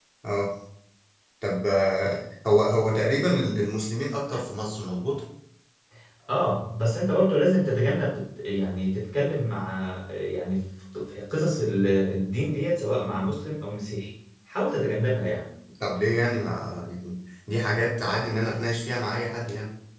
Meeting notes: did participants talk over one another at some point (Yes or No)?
No